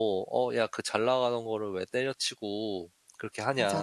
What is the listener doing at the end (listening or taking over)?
taking over